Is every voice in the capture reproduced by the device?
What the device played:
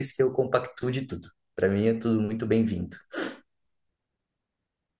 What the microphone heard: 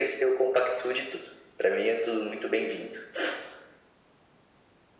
Yes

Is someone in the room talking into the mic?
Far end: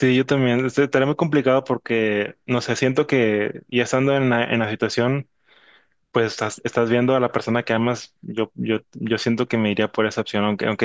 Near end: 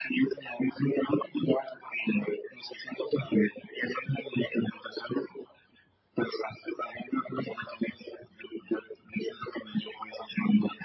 No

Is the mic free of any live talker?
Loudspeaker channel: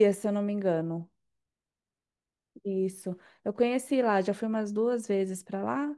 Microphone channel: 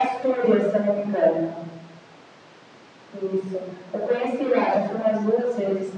Yes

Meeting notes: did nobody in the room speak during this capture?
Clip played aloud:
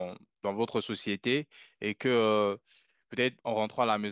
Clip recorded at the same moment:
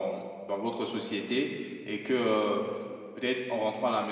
Yes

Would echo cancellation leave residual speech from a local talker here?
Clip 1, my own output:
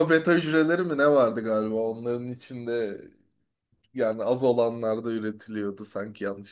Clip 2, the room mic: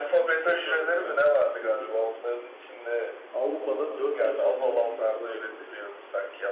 Yes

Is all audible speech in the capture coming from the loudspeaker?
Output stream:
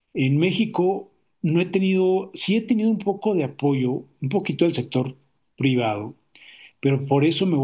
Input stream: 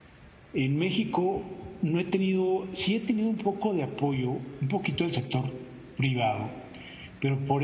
Yes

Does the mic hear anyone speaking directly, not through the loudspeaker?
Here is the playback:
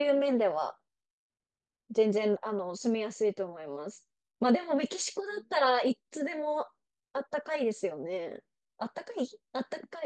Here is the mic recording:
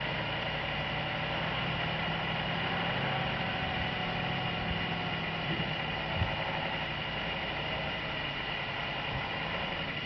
No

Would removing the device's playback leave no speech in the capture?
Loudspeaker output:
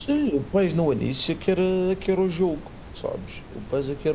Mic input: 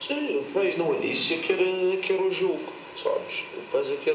Yes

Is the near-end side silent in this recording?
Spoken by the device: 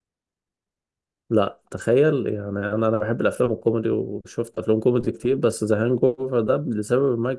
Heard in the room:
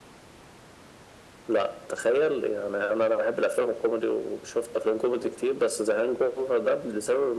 Yes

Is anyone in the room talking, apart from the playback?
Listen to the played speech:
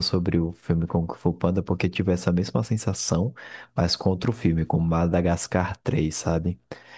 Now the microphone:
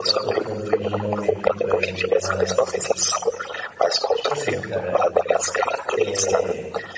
Yes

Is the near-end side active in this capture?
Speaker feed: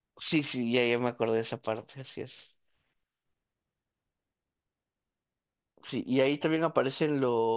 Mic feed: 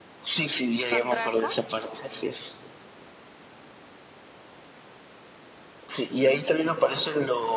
Yes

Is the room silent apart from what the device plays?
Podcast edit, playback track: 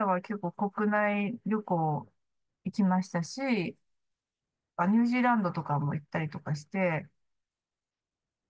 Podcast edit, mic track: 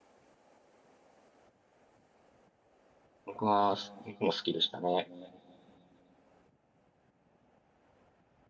No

